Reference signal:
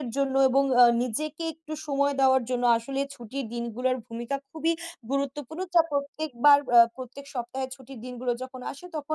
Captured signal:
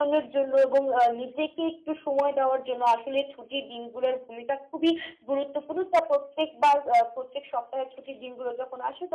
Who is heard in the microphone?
echo only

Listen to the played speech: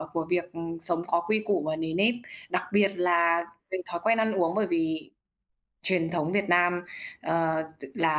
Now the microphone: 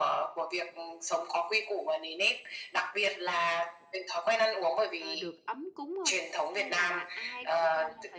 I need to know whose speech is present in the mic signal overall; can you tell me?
both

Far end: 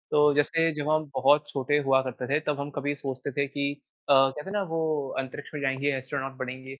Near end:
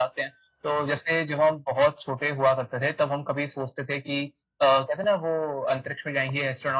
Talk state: echo only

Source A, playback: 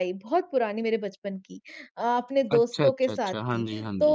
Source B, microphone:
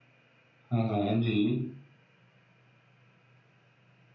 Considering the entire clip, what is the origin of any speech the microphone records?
user only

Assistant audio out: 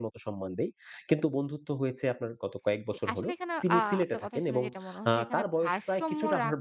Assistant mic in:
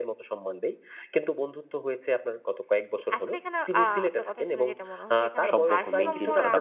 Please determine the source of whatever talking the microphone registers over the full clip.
both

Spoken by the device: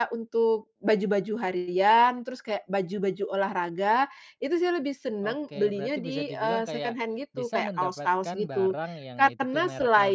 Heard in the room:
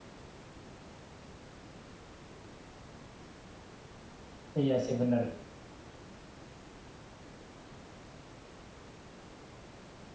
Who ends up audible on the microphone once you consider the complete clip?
user only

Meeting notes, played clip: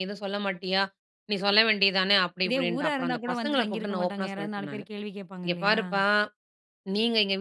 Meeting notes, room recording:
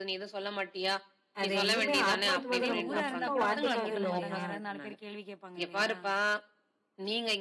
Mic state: both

